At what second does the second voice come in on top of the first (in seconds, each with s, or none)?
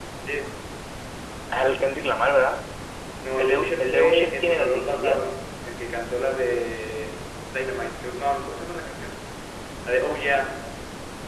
3.4 s